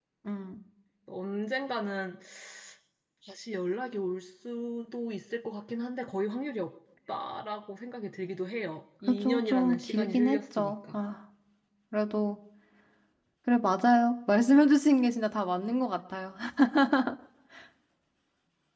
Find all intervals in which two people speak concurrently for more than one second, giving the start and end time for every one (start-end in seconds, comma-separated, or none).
9.2-11.0